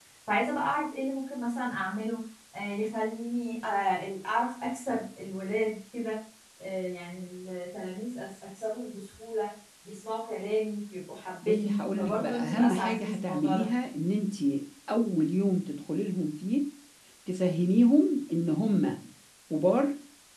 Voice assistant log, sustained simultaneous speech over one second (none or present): present